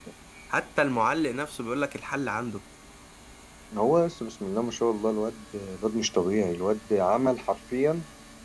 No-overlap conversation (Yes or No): Yes